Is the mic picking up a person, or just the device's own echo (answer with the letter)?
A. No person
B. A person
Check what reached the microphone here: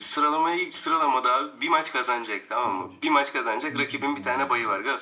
B